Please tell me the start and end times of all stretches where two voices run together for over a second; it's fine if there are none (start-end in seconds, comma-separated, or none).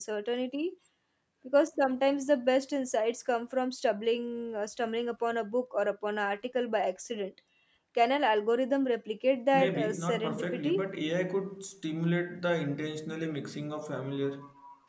9.5-10.8